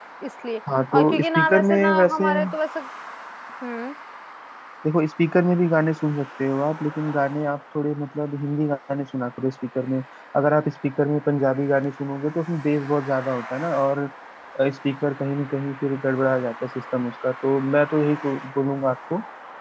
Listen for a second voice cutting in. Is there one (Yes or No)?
Yes